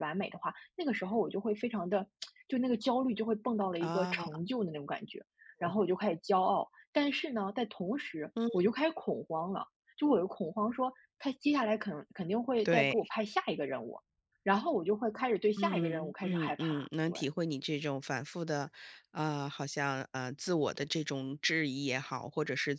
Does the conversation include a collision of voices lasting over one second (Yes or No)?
Yes